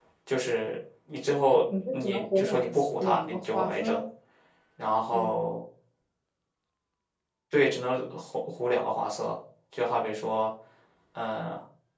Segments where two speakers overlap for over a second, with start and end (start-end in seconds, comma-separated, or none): 1.9-4.0